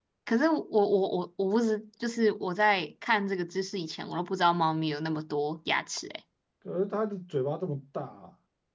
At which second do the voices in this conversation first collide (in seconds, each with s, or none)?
none